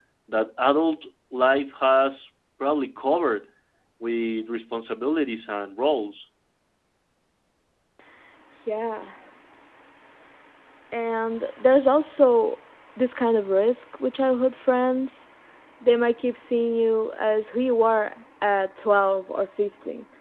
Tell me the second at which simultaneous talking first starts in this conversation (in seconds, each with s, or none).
none